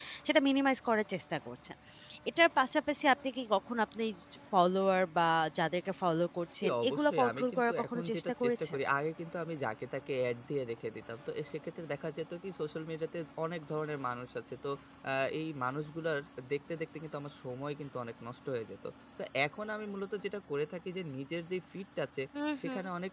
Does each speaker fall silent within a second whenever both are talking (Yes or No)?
No